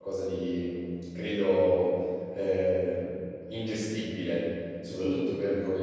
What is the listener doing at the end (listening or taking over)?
listening